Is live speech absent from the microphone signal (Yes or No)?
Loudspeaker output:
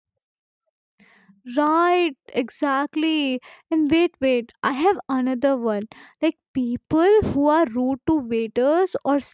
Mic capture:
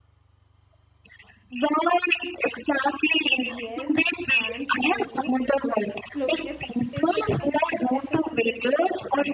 No